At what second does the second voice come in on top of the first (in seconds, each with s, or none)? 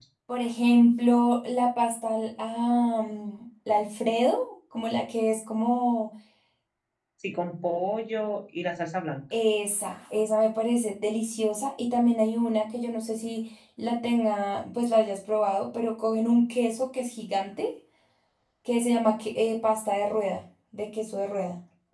none